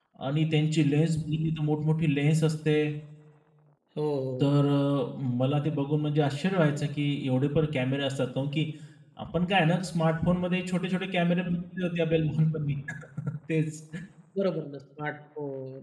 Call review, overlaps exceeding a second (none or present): none